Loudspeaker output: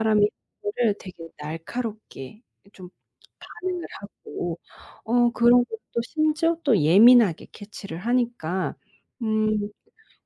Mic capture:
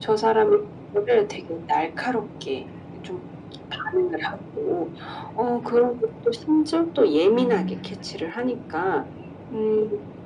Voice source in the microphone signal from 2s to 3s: echo only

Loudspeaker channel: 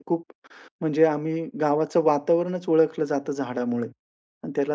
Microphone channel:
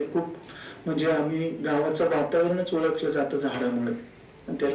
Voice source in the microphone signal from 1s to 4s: echo only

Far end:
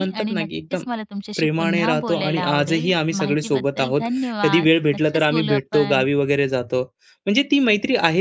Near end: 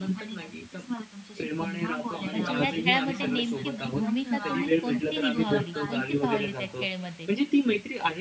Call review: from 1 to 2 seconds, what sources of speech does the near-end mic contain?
echo only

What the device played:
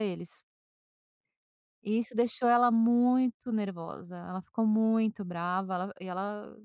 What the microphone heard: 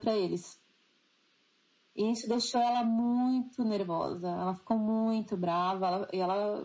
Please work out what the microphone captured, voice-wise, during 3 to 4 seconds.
echo only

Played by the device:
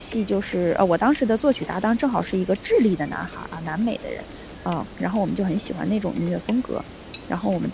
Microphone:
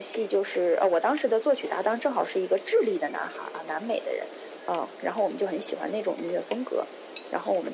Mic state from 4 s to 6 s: echo only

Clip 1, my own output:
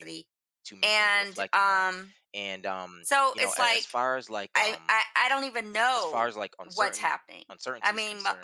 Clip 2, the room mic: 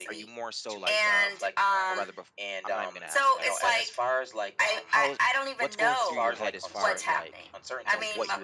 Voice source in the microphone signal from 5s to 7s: both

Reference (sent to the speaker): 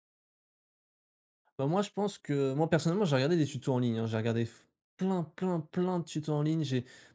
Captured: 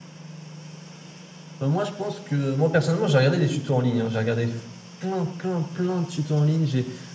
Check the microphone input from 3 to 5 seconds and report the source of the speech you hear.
echo only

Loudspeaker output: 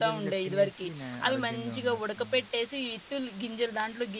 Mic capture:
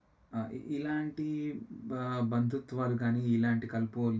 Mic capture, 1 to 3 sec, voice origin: user only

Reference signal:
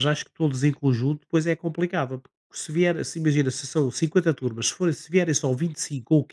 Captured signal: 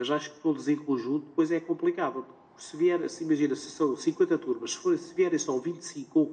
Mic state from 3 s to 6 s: echo only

